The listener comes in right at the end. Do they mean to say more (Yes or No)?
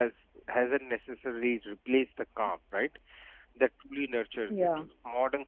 No